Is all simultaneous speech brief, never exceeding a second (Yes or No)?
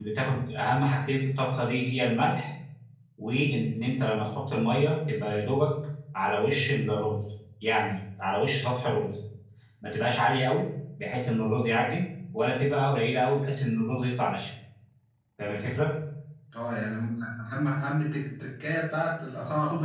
Yes